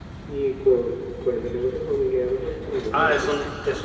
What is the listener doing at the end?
taking over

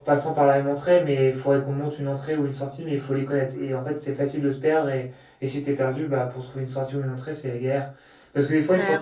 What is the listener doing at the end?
listening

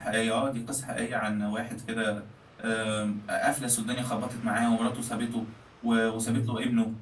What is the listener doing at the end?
listening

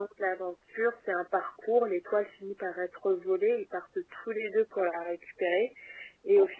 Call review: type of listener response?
listening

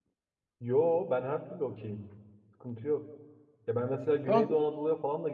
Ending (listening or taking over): listening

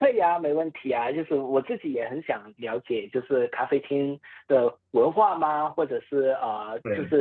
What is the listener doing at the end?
listening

